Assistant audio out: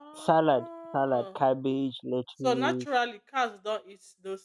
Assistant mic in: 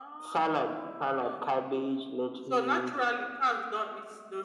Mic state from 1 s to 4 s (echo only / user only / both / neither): echo only